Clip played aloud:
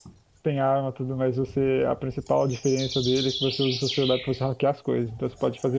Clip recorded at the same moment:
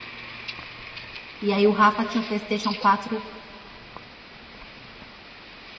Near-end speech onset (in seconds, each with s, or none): 1.4 s